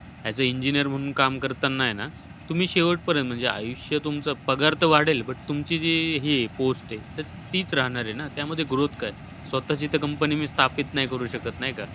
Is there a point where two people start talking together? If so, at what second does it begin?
none

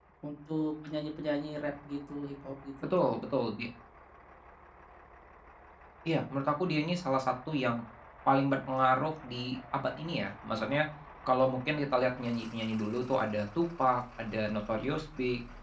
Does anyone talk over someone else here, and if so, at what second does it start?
none

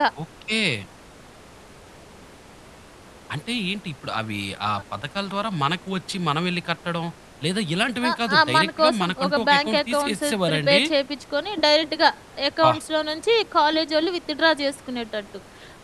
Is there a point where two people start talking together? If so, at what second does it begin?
8 s

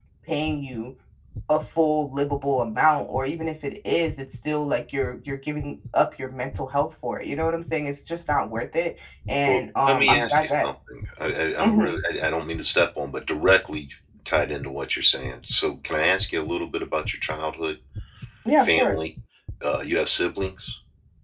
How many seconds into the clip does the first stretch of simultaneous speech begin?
9 s

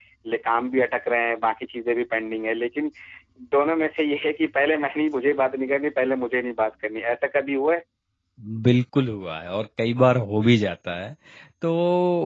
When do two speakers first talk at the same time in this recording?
none

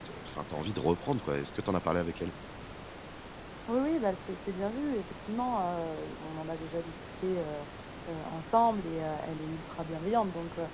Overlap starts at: none

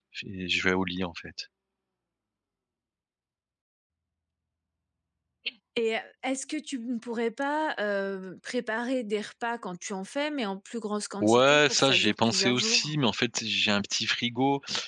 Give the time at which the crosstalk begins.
11 s

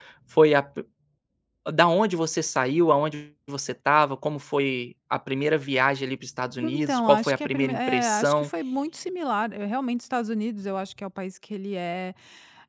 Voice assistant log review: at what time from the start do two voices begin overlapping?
7 s

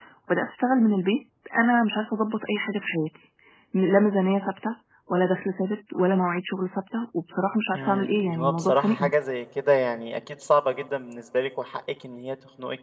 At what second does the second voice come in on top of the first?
8 s

